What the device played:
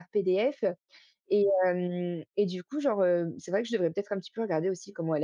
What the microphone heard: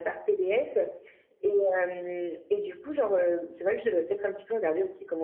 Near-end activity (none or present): none